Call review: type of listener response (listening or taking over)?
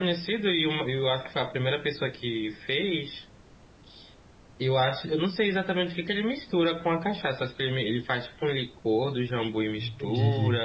listening